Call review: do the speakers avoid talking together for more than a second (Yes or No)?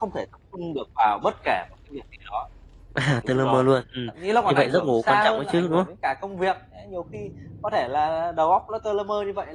No